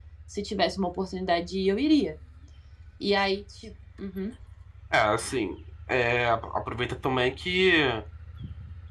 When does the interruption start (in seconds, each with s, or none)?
none